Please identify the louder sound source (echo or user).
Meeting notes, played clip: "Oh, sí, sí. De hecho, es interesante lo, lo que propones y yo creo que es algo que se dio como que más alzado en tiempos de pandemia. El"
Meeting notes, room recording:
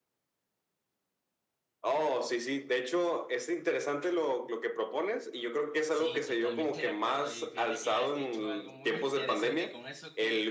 echo